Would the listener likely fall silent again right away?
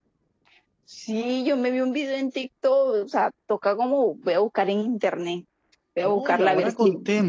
No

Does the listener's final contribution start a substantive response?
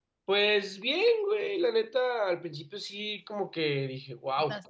No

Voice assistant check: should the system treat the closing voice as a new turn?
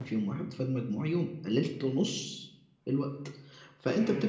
No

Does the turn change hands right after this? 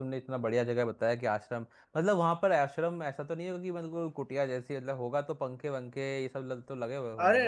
Yes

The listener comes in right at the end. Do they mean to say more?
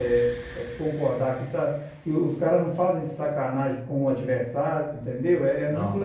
No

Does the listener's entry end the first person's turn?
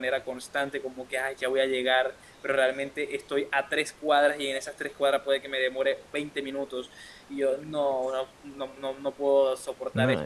Yes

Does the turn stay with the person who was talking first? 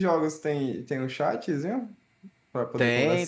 No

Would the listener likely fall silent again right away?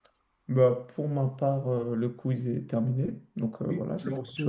No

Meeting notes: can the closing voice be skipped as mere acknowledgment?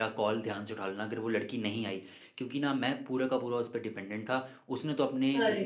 Yes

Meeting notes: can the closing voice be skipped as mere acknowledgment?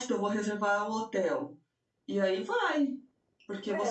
No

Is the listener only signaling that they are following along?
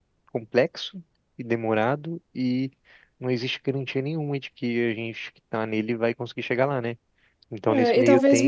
No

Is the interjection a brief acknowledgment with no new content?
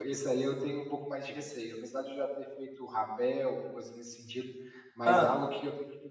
Yes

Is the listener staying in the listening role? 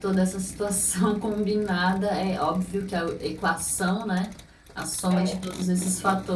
Yes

